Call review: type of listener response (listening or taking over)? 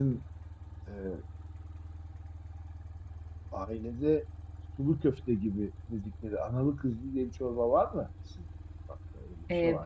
taking over